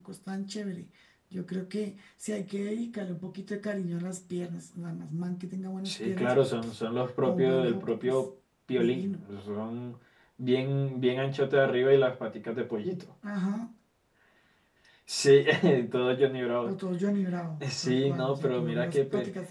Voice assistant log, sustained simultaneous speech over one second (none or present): present